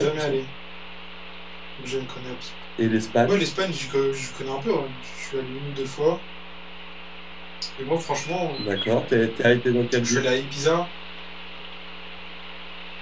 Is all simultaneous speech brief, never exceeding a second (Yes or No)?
Yes